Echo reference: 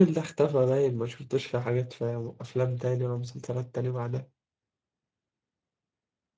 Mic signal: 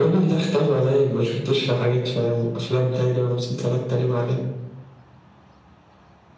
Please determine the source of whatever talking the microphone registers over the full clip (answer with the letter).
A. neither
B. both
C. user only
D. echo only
D